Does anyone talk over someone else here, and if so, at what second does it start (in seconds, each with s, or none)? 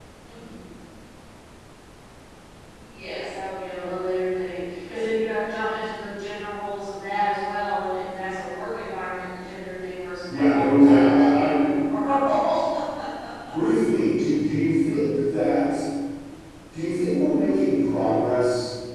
10.3 s